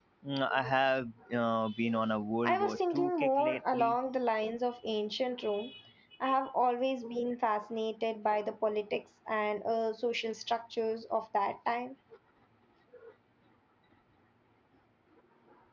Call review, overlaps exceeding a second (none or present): present